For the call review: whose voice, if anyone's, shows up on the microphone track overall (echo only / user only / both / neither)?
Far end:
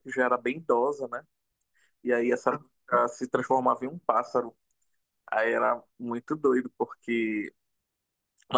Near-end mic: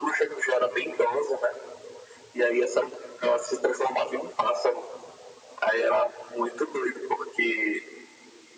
echo only